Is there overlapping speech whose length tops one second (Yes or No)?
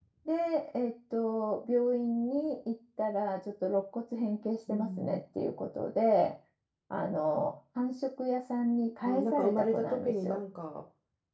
Yes